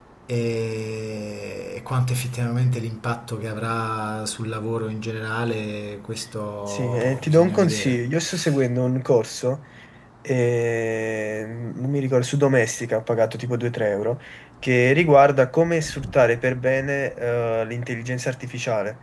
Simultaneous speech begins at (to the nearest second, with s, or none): 7 s